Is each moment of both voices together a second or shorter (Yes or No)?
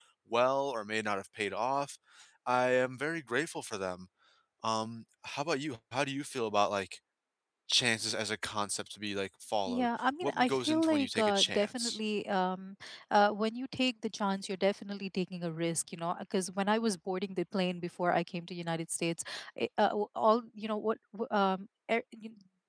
No